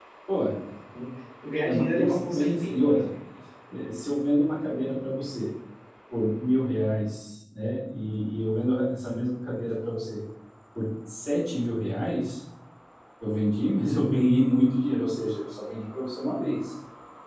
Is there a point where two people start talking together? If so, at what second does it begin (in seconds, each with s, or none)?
1.6 s